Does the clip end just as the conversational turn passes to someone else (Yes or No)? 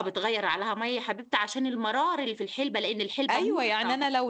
Yes